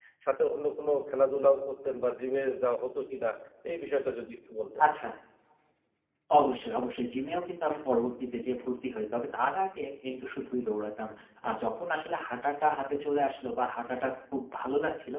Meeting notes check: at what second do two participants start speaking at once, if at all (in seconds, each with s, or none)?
none